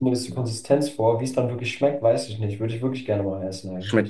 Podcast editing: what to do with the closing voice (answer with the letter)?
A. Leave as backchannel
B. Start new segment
B